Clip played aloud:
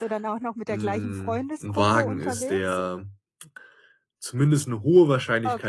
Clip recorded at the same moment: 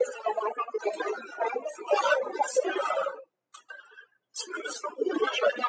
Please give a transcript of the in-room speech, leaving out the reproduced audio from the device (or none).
none